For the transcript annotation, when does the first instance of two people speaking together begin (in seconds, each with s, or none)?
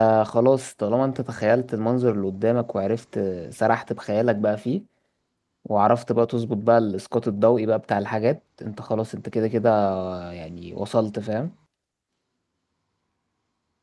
none